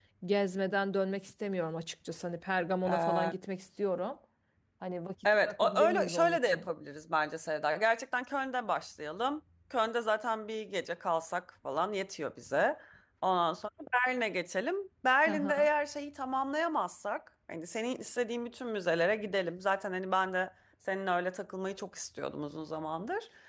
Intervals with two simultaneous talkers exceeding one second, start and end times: 5.5-6.7

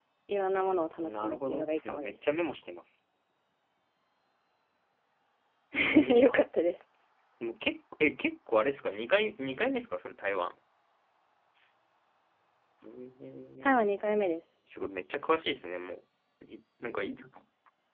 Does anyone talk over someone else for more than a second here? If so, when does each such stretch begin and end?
1.0-2.2

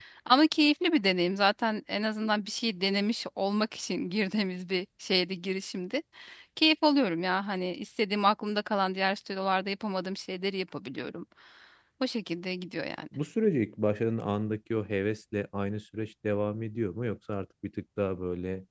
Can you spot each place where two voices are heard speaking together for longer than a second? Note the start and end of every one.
none

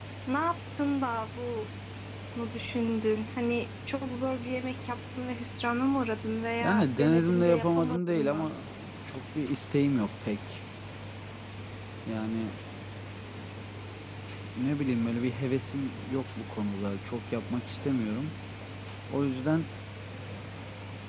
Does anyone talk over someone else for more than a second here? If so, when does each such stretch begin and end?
6.6-8.5

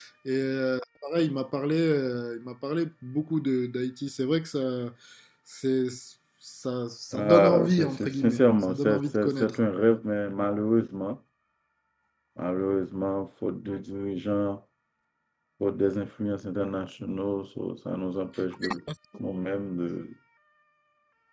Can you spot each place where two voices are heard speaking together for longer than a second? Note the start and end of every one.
7.1-9.6

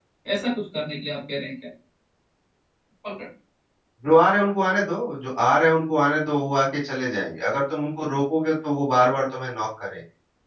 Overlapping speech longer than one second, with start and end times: none

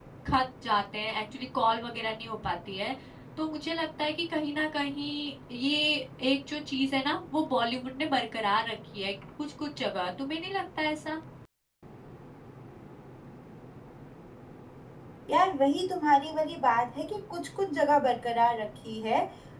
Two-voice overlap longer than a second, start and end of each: none

